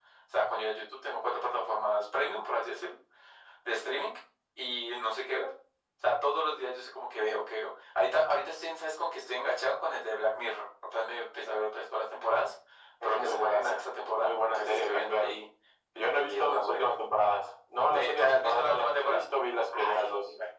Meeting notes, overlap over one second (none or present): present